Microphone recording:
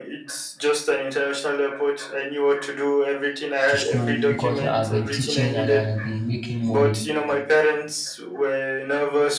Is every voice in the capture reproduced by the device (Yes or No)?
No